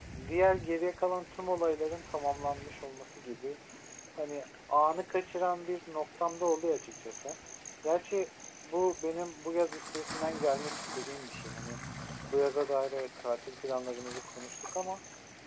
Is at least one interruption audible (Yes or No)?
No